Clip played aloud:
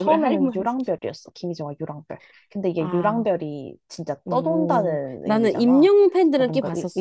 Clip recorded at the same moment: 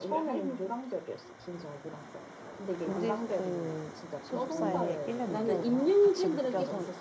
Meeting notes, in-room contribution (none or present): present